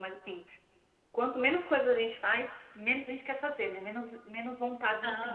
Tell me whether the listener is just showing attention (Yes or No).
Yes